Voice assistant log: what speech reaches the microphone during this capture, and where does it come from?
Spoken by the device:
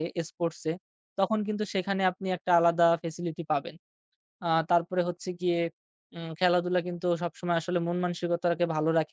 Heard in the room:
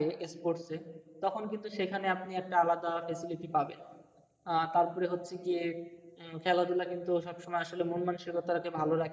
echo only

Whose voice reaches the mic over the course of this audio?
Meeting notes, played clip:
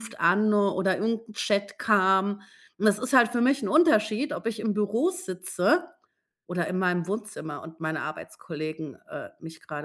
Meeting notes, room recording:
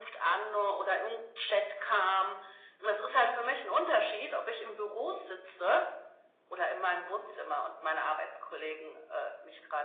echo only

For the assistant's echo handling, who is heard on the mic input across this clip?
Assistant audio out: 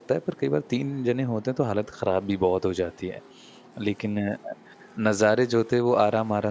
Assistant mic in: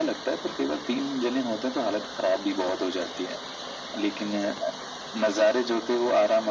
echo only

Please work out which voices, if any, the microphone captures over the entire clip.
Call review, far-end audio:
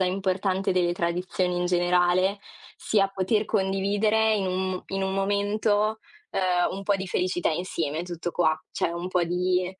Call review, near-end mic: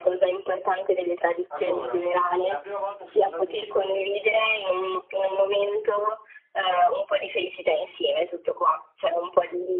both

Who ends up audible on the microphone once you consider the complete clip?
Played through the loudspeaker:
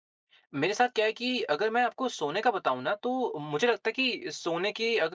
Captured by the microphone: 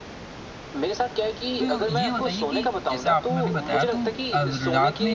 both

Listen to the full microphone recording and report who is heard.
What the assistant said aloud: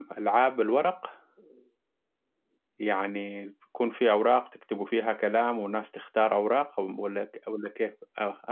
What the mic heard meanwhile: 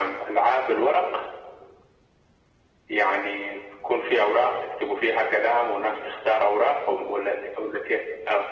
echo only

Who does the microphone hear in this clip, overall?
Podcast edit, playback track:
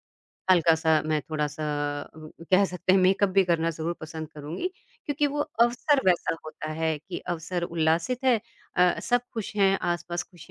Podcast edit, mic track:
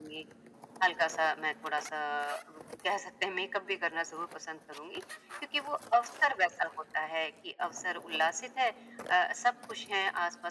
echo only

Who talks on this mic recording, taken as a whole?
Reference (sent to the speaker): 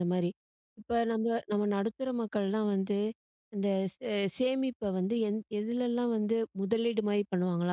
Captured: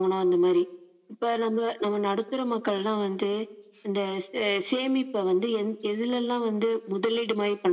echo only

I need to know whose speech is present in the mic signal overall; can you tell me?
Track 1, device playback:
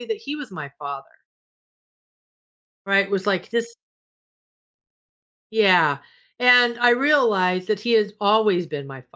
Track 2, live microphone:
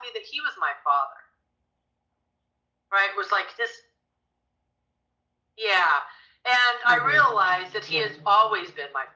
both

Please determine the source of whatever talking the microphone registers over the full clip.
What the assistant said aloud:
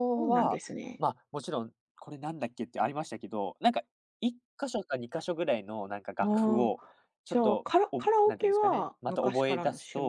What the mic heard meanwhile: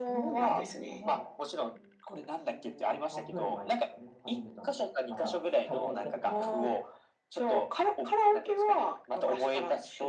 both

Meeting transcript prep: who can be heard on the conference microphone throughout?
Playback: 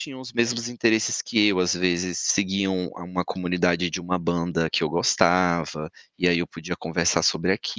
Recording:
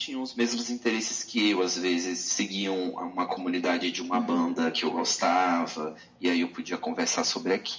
both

